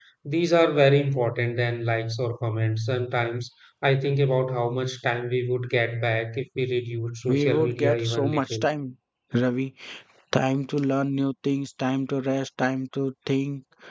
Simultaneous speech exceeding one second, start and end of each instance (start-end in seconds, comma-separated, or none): 7.3-8.7